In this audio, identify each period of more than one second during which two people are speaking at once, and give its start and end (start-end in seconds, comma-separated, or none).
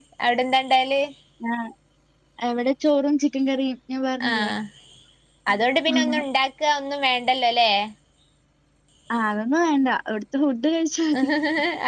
none